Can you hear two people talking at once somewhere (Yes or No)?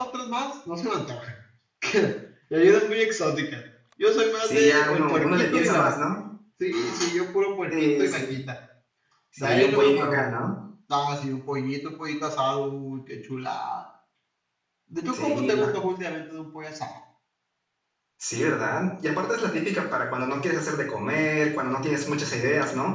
Yes